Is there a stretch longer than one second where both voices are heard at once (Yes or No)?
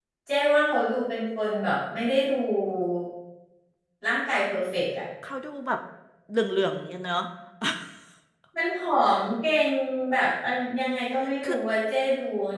No